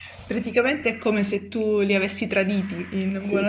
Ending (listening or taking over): taking over